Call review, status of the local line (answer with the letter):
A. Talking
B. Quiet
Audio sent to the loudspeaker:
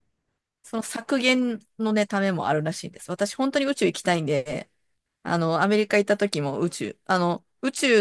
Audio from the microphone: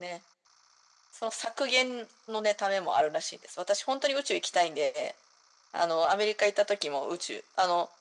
B